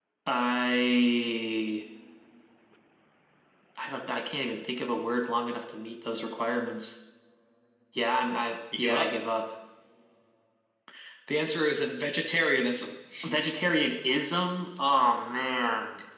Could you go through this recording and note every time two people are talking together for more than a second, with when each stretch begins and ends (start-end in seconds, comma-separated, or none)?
none